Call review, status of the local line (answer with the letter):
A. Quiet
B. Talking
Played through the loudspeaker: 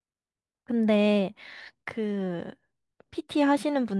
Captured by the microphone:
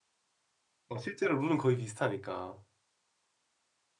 B